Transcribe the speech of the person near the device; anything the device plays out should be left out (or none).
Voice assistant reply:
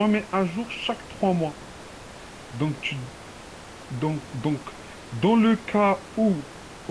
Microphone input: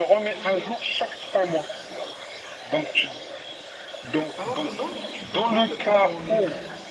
Alors dis-moi, tu fais quoi de ton temps libre?